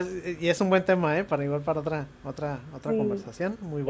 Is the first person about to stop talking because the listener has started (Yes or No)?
Yes